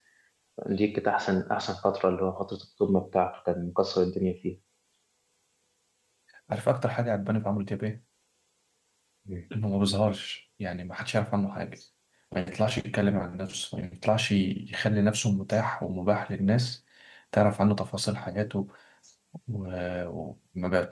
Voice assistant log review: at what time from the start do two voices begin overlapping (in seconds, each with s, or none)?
none